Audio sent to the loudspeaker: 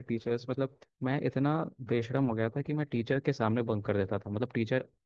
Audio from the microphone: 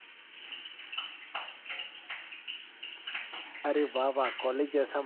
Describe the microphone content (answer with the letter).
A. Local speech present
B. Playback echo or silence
A